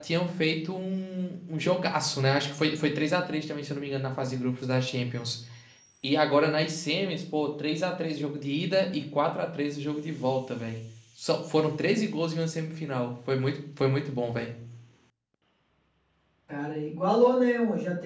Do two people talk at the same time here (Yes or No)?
No